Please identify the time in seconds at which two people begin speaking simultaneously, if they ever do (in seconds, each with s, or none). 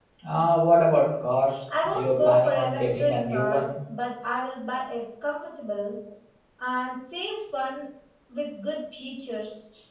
1.7 s